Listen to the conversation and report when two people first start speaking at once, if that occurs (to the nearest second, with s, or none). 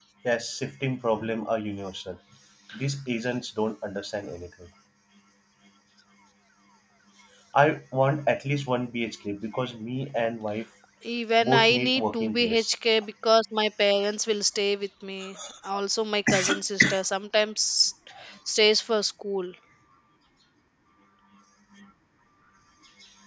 11 s